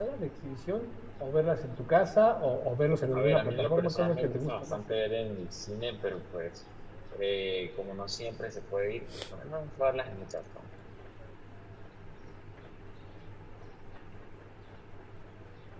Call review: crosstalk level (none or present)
present